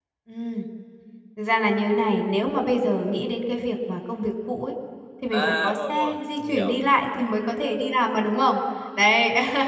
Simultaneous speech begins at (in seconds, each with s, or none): 5.3 s